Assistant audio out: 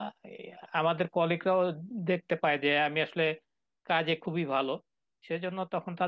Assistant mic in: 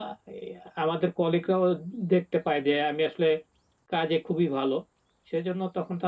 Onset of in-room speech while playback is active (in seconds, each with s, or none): none